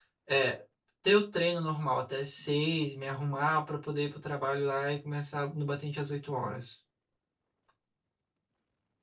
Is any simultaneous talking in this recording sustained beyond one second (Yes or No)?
No